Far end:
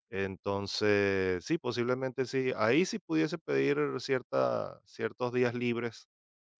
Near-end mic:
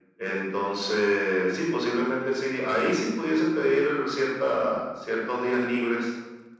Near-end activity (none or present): none